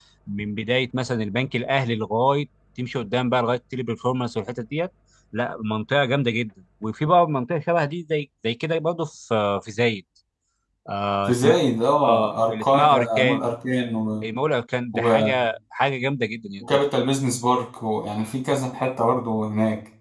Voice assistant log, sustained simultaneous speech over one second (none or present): present